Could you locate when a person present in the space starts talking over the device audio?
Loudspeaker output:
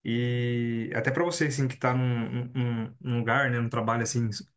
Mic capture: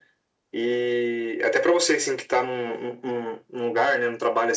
none

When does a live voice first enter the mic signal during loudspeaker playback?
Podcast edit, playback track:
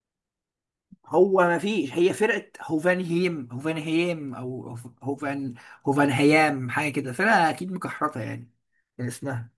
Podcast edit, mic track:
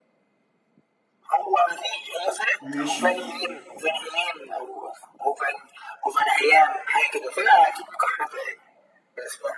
2.6 s

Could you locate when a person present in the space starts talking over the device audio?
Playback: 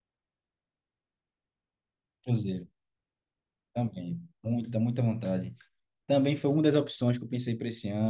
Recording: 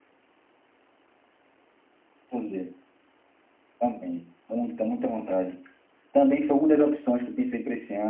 none

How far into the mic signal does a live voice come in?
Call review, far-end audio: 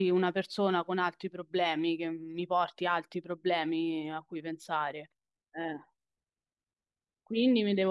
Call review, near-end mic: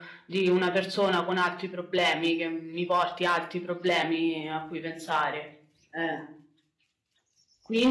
none

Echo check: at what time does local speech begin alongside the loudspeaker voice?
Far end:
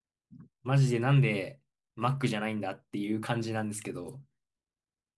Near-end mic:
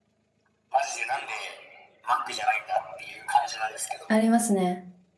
4.1 s

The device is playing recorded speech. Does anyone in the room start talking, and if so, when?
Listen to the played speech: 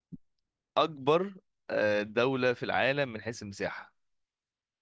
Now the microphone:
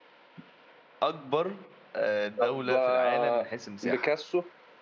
2.4 s

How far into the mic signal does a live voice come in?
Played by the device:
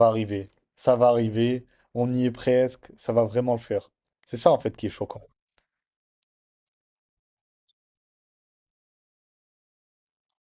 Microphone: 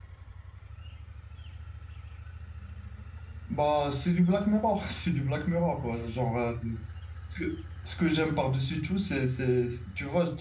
3.5 s

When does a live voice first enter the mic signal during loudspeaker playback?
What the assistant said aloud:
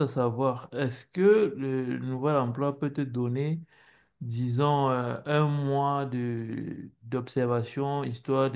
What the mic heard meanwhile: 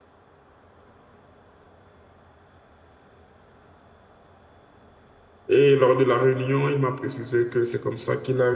5.5 s

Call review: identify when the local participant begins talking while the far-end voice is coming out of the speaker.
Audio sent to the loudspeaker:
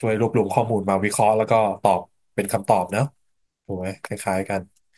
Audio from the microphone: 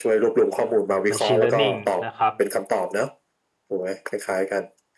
1.1 s

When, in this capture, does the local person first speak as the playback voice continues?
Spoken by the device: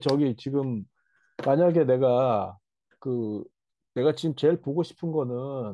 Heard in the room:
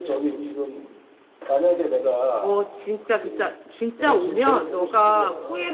2.4 s

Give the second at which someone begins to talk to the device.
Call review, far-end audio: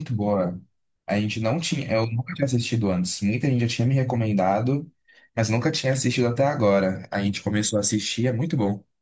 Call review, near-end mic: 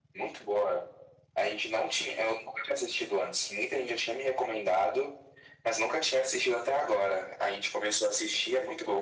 none

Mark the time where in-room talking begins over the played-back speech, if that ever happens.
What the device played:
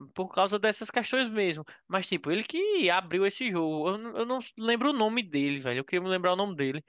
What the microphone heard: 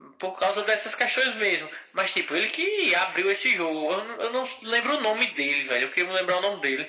none

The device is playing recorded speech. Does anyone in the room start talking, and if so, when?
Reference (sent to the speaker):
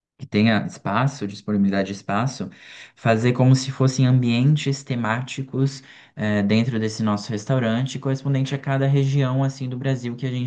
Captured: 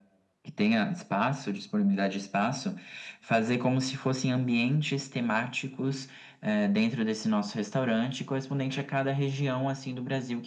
none

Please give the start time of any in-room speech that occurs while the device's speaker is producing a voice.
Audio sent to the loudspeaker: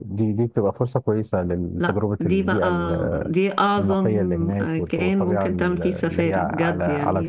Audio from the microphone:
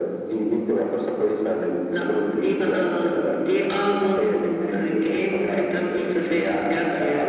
none

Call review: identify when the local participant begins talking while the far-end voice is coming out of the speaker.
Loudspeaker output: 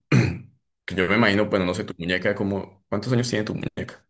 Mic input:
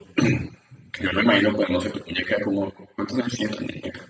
none

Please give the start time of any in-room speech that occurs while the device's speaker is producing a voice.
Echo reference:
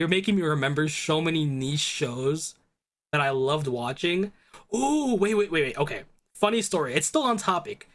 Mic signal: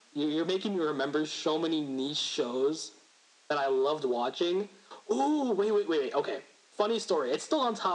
none

